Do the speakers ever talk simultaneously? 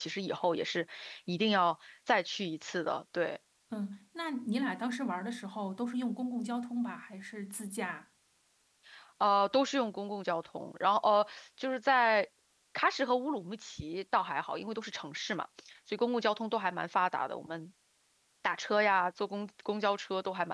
No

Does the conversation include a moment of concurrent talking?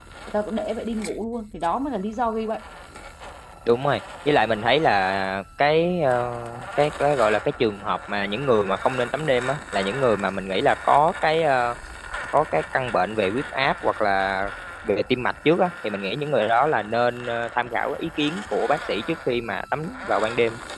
No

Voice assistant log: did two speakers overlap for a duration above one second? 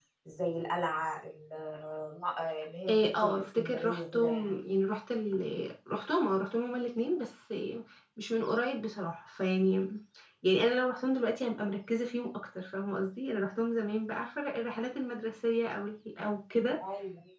Yes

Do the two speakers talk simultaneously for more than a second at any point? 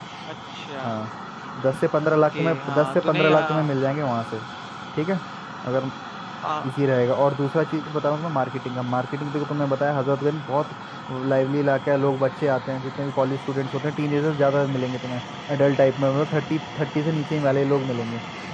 Yes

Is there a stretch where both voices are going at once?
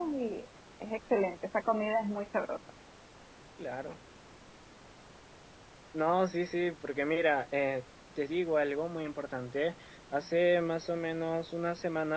No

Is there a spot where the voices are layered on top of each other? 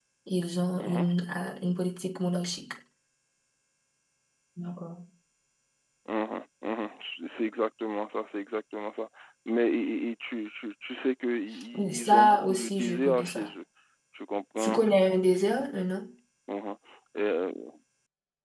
Yes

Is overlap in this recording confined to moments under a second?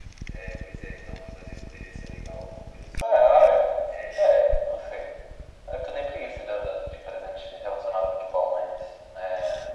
Yes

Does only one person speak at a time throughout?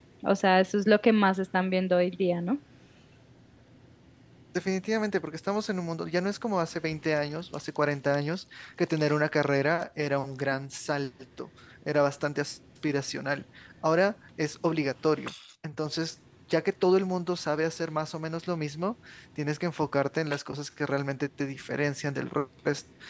Yes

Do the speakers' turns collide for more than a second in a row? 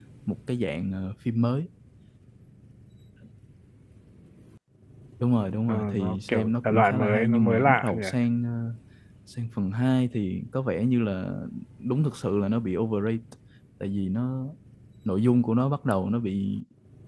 Yes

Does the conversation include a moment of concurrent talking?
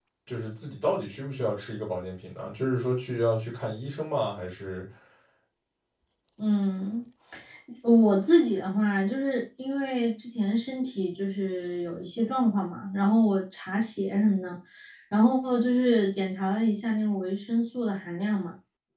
No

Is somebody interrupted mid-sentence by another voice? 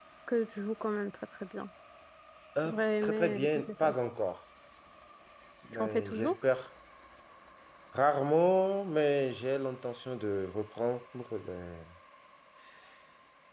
Yes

